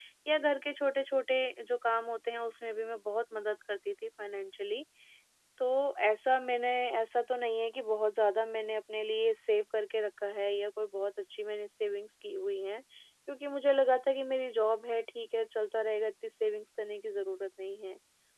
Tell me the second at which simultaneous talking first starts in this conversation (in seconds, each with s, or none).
none